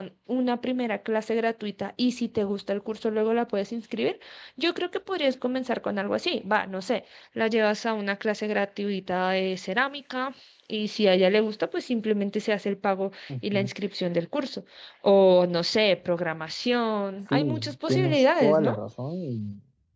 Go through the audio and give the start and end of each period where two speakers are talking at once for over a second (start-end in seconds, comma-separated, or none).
17.3-18.8